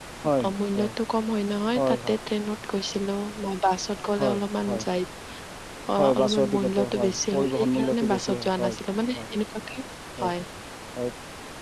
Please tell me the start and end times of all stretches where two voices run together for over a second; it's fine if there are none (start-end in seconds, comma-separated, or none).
6.0-8.8